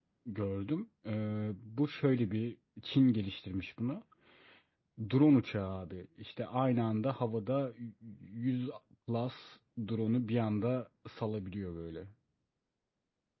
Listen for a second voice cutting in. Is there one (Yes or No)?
No